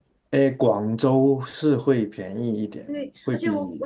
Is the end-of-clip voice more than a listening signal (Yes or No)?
Yes